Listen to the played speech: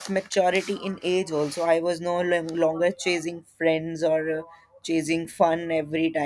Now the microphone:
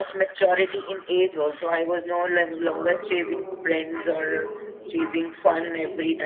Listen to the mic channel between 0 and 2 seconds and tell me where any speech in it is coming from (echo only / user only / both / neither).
echo only